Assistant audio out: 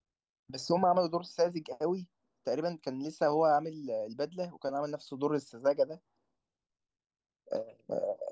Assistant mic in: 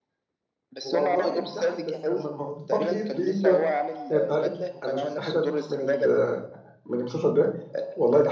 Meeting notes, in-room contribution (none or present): present